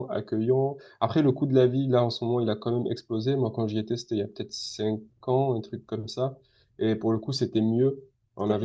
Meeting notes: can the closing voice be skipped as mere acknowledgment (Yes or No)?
Yes